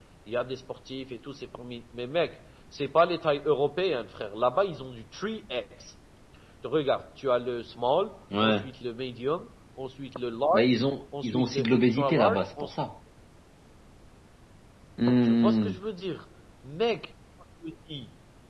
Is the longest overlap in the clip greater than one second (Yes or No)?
Yes